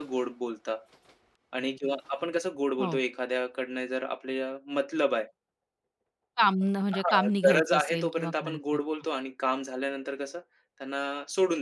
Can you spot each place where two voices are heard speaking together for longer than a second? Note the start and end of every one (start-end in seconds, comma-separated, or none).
7.0-8.8